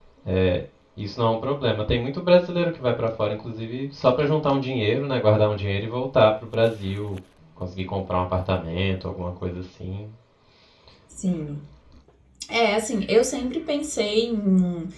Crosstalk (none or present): none